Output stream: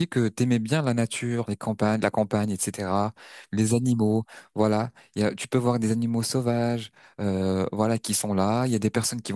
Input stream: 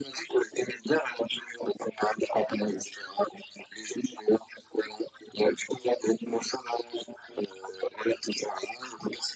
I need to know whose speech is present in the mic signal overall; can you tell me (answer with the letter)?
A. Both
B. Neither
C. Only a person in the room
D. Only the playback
D